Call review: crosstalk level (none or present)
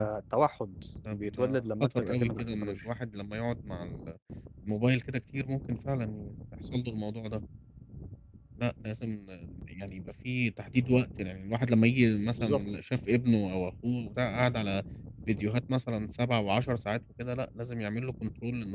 present